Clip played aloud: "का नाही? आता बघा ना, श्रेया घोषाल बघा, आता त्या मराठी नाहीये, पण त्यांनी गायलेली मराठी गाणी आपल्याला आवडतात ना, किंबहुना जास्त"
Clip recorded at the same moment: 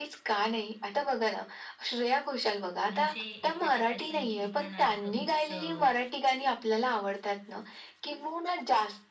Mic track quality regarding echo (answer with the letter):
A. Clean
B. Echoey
B